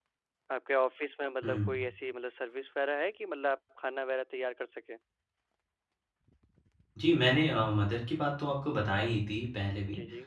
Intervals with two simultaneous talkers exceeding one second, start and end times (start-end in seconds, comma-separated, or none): none